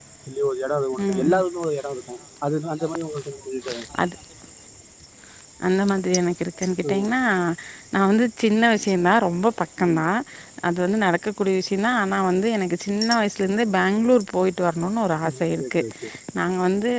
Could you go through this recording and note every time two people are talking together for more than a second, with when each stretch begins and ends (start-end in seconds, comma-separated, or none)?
none